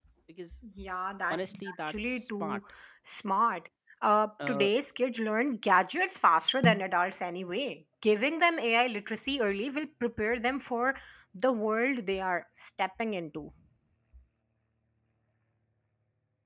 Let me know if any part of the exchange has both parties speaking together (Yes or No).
Yes